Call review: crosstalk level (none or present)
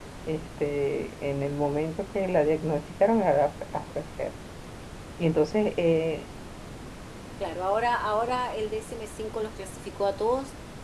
none